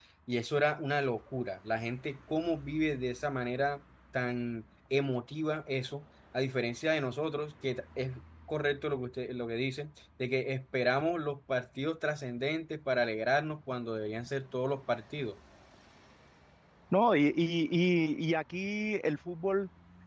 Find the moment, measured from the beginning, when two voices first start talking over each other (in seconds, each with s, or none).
none